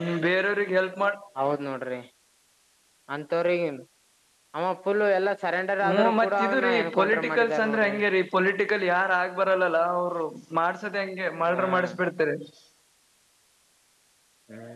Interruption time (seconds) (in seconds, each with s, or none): 5.8 s